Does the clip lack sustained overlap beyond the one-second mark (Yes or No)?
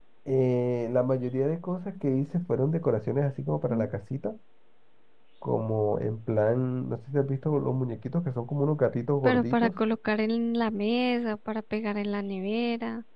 Yes